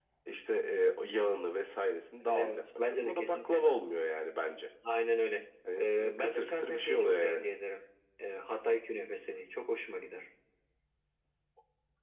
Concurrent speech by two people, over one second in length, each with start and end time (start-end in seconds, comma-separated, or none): 2.2-3.6, 5.8-7.4